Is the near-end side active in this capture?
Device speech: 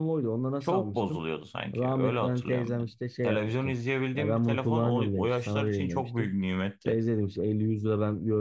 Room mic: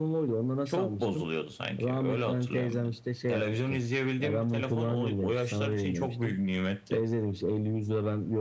No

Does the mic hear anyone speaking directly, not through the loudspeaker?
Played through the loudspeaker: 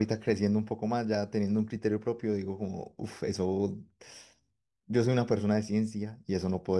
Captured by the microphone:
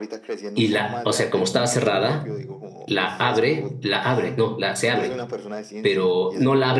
Yes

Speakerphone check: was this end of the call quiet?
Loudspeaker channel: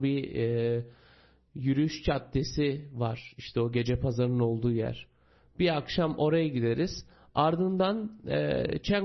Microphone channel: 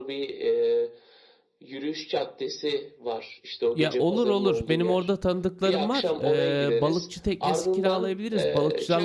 No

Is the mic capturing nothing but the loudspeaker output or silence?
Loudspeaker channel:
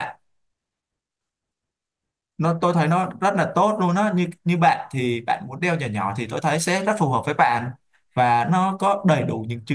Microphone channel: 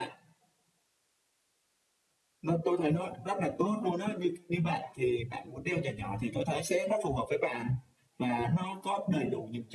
Yes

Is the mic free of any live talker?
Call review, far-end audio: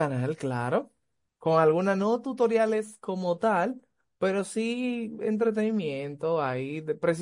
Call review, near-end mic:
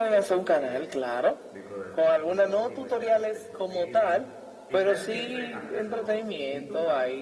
No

